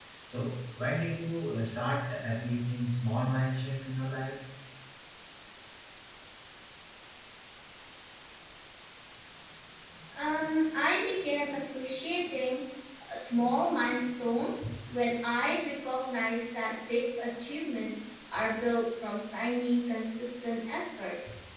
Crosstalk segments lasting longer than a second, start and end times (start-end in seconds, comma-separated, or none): none